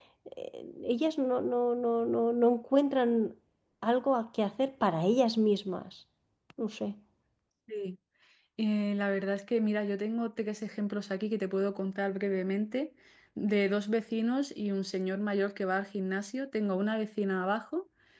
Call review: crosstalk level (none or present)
none